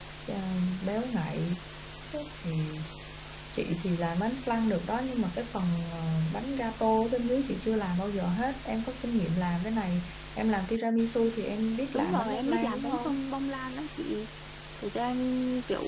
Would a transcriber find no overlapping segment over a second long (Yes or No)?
No